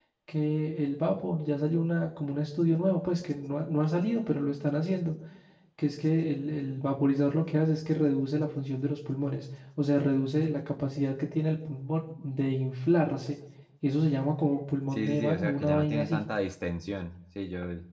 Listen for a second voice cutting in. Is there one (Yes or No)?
Yes